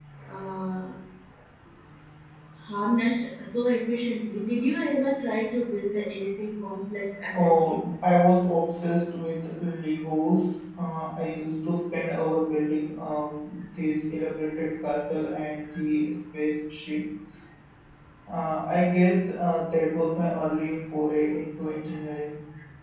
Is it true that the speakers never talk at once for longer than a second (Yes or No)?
Yes